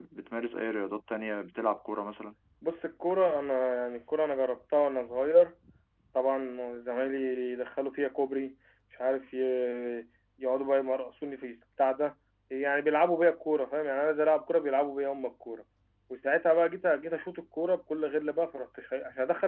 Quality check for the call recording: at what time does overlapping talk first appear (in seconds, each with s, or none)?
none